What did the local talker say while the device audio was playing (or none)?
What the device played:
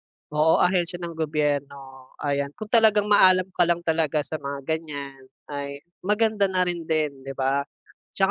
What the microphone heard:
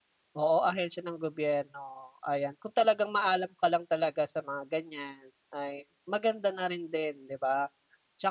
none